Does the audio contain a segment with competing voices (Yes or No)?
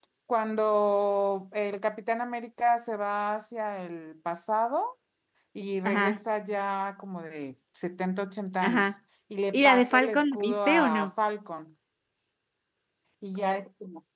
Yes